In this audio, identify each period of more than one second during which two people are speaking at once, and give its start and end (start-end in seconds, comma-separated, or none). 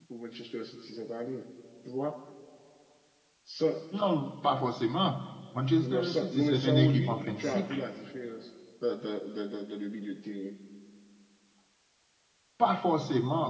5.8-7.8